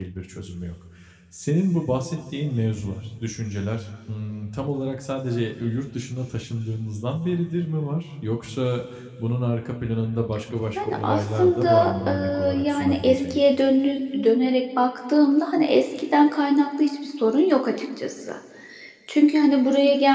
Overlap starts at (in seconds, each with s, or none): 10.8 s